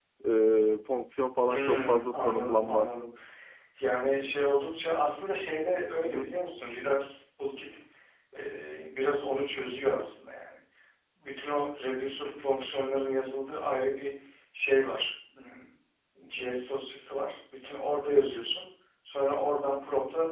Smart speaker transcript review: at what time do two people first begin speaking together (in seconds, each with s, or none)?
1.5 s